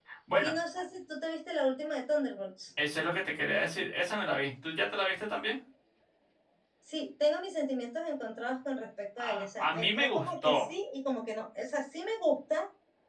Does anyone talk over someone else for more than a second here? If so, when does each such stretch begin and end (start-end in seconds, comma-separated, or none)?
9.2-10.7